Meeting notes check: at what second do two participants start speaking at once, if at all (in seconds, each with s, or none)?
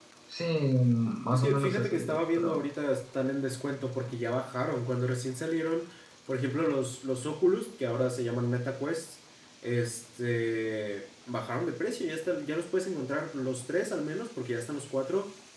1.3 s